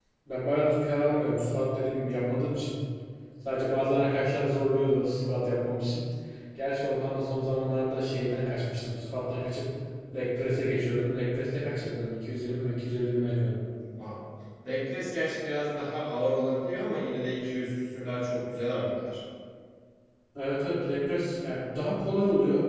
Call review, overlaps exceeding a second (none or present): none